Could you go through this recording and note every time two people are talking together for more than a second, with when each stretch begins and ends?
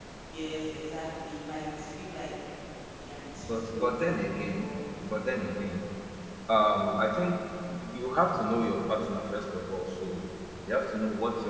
3.5-4.7

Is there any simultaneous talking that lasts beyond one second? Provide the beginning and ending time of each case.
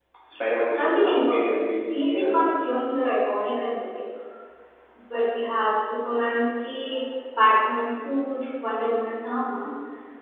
0.7-2.4

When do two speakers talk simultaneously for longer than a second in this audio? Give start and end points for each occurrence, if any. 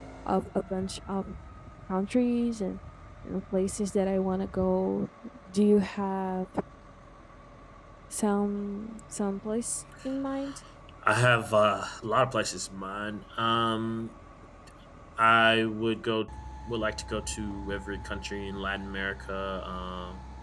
none

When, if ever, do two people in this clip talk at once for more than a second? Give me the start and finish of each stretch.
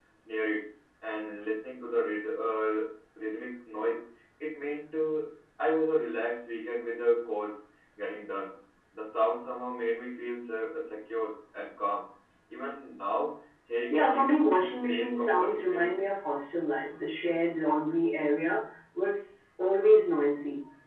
13.9-16.0

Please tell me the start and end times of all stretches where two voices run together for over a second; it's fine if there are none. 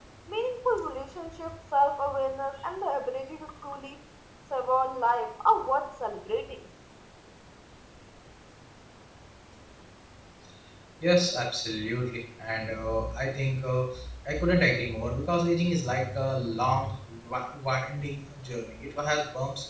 none

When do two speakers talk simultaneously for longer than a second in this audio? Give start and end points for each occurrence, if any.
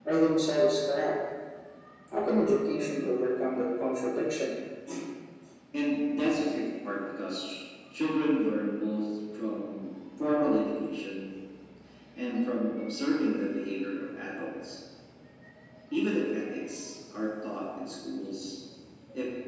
none

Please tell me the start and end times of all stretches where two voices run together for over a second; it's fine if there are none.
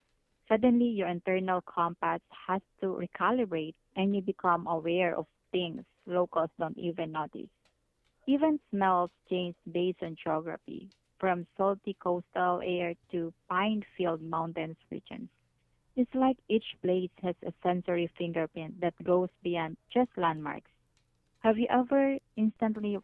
none

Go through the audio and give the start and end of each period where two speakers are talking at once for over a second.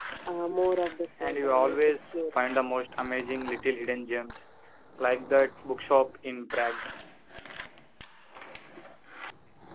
1.2-2.4

